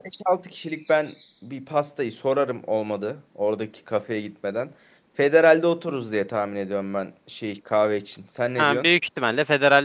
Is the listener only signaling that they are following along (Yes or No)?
No